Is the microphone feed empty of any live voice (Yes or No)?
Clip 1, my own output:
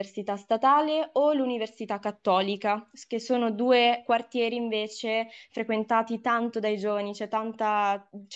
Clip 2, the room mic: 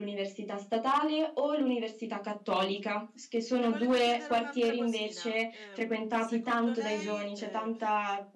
No